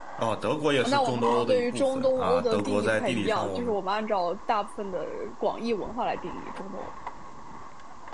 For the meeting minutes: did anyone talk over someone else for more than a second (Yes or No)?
Yes